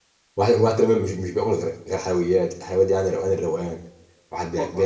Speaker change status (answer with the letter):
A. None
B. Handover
A